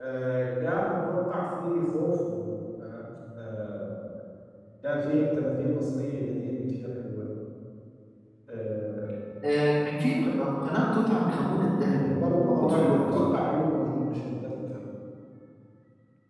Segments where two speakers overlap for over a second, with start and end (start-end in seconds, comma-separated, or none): 12.0-13.3